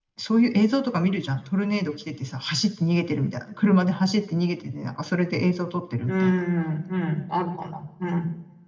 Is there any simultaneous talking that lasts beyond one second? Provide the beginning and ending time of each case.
none

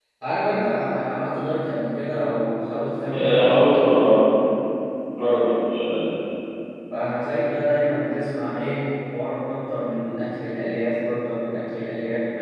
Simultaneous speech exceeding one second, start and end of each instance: none

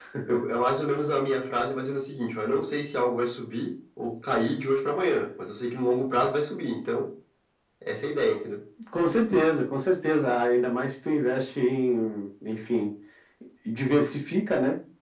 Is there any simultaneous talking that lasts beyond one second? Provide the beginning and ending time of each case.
none

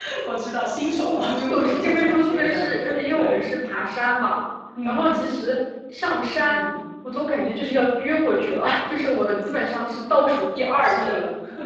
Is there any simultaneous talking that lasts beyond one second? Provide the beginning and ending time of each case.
1.5-3.4

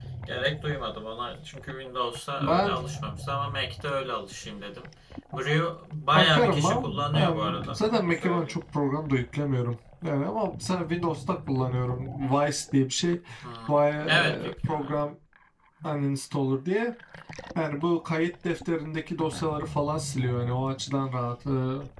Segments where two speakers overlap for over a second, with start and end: 6.2-8.6, 13.7-15.1

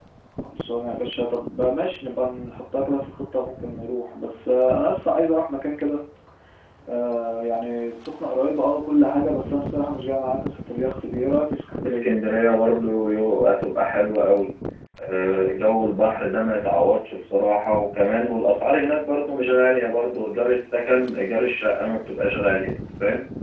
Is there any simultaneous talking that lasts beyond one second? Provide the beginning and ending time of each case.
none

